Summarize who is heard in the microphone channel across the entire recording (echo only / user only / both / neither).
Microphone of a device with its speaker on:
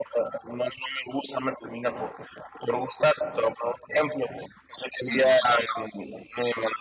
both